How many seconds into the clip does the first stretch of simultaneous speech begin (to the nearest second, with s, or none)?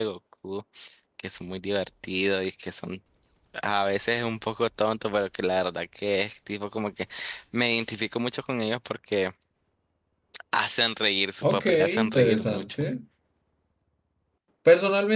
11 s